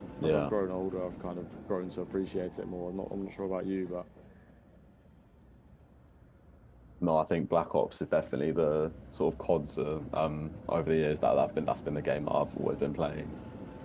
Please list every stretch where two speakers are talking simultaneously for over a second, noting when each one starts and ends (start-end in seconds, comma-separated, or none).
none